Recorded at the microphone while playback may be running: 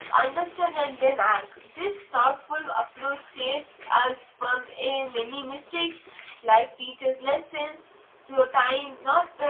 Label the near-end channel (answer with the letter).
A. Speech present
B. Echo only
A